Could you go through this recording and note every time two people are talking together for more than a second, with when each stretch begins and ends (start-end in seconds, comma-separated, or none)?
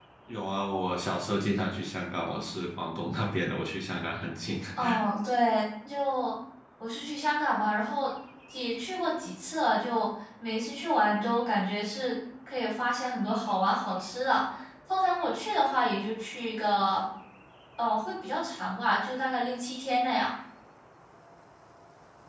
none